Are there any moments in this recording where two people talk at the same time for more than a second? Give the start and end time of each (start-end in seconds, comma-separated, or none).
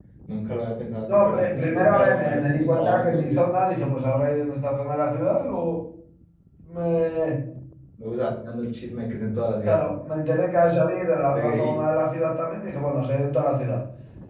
1.1-3.5